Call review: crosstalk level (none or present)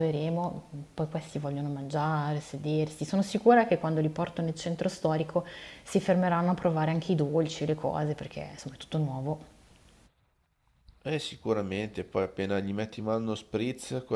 none